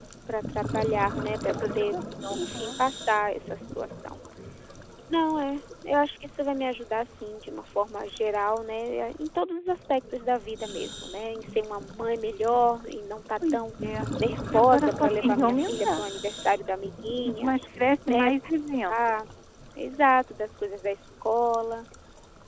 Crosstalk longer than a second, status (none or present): present